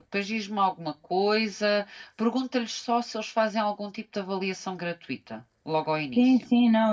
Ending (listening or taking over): taking over